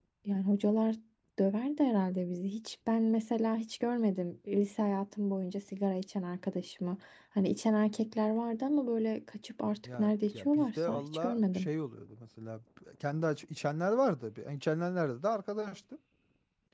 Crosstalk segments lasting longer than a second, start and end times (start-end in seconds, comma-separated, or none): 9.8-11.7